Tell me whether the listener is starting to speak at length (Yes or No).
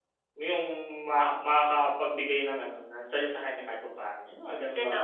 Yes